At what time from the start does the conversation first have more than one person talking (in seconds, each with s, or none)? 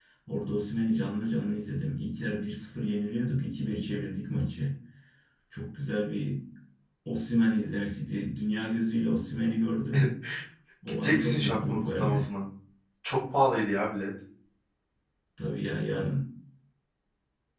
11.0 s